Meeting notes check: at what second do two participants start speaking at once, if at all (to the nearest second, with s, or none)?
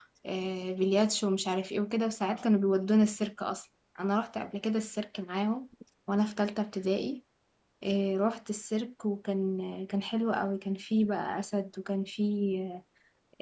none